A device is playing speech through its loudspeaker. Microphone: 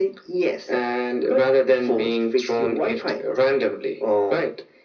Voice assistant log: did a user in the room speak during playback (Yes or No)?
No